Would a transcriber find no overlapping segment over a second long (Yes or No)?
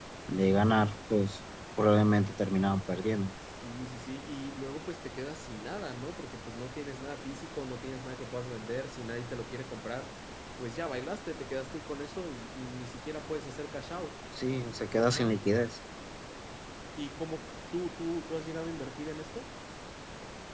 Yes